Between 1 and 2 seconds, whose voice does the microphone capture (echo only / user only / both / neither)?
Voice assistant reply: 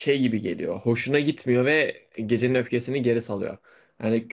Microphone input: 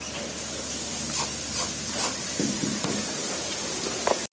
neither